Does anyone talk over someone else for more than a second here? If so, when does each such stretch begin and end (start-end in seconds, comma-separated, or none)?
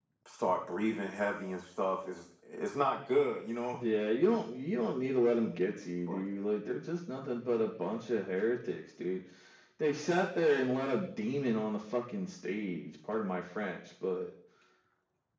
none